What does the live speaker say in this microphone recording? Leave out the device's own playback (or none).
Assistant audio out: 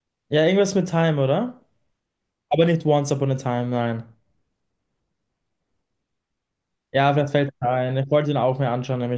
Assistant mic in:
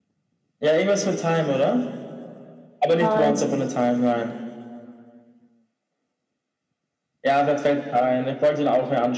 Nein.